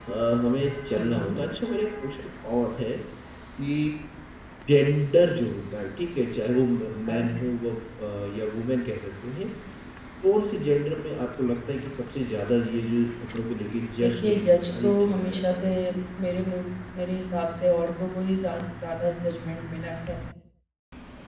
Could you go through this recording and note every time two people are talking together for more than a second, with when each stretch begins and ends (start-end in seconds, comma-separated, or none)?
14.0-15.7